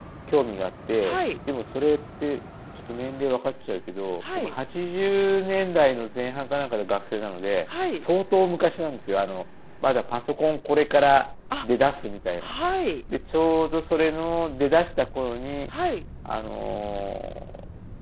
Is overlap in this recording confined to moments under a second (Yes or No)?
Yes